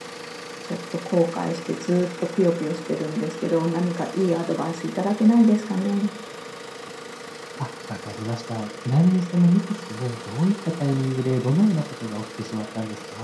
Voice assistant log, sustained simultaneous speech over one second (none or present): none